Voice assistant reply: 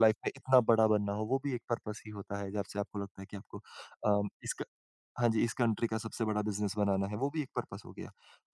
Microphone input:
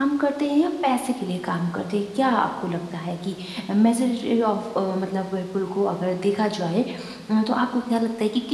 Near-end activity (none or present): present